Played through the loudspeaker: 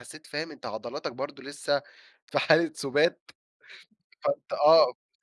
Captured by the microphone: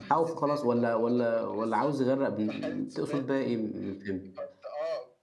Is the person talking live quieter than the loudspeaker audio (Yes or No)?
No